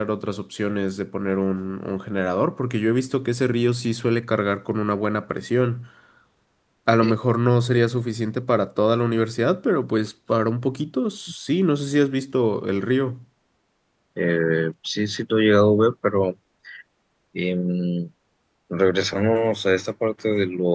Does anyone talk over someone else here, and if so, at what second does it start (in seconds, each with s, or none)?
none